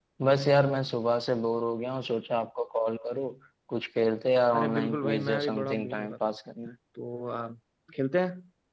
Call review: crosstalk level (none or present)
present